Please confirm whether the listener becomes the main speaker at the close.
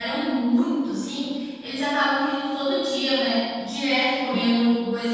No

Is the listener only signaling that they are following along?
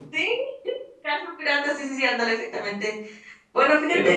Yes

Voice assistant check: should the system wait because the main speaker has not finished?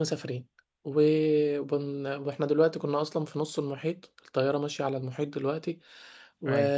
Yes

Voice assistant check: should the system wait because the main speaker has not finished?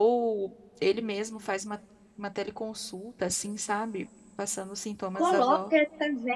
No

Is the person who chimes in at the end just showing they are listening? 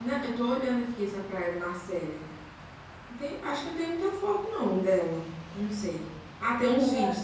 Yes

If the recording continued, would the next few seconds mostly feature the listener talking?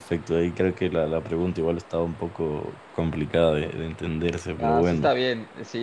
Yes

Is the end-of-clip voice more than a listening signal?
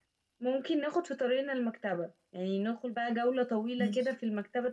No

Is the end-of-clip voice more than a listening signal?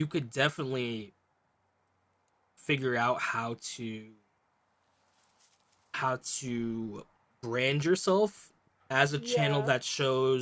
No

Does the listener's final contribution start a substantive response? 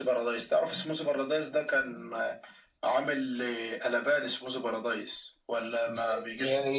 Yes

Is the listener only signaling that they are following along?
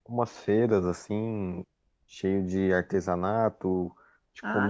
Yes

